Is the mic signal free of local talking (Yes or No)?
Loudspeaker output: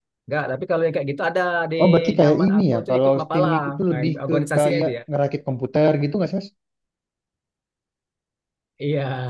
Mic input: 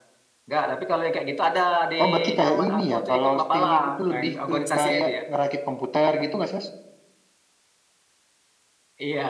Yes